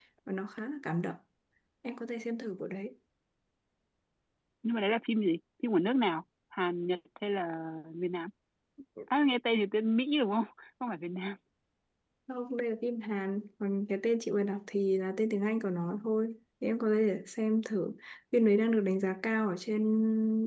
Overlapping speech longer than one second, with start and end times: none

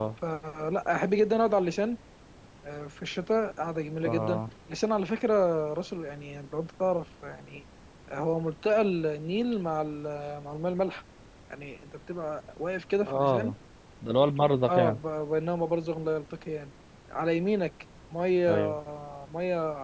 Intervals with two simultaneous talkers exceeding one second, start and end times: none

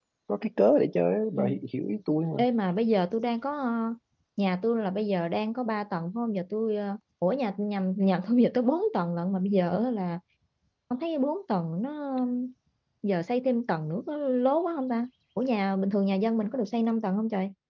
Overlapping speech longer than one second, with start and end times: none

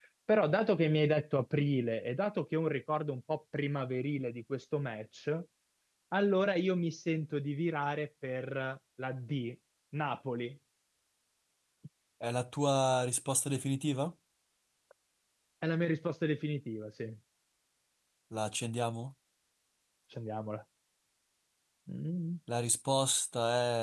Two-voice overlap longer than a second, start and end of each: none

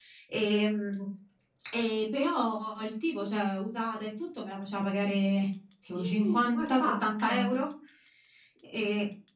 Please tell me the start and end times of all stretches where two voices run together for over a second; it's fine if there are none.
5.9-7.6

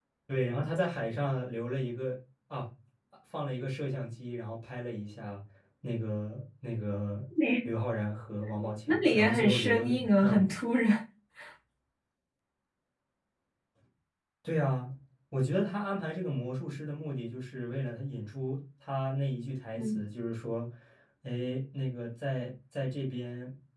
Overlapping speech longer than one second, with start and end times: 8.9-10.5

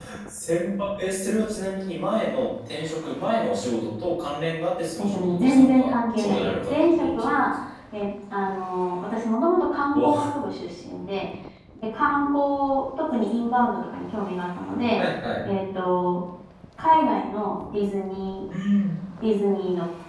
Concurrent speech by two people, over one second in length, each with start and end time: 5.0-7.4

